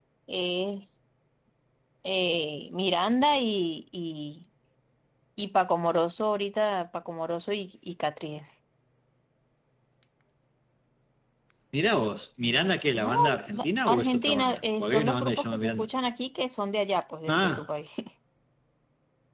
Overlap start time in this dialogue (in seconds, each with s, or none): 13.0 s